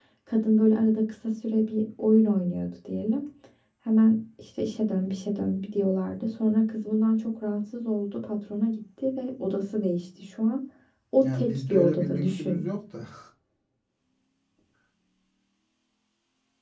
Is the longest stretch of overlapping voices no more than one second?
No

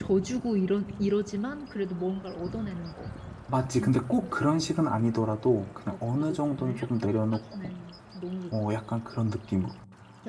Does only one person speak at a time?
No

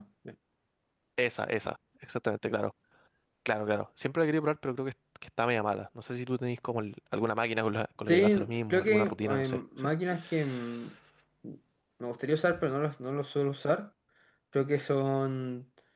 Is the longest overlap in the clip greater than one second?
Yes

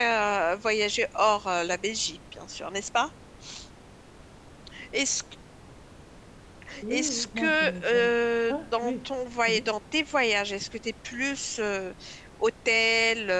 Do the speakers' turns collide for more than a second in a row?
Yes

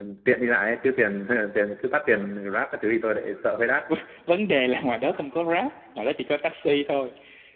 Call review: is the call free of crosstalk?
Yes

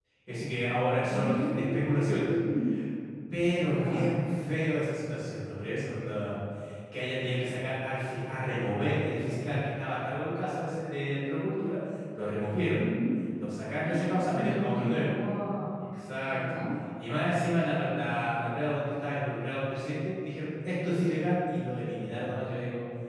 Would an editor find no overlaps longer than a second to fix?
No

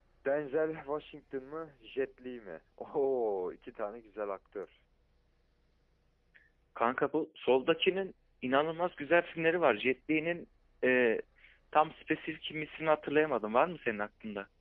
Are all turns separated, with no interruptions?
Yes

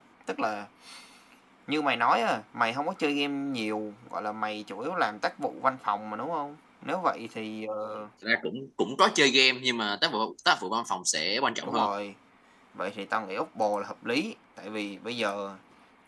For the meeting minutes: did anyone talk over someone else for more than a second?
No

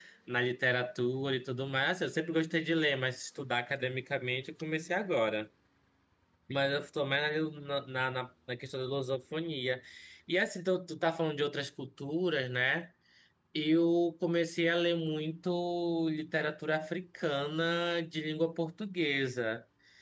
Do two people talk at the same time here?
No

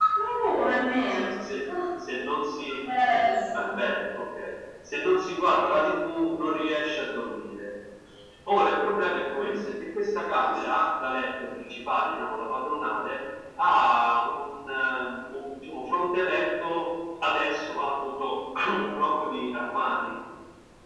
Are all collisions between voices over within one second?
Yes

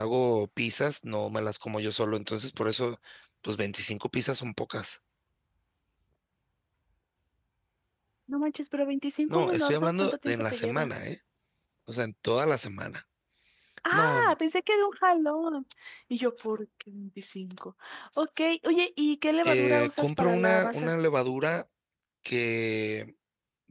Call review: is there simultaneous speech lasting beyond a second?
Yes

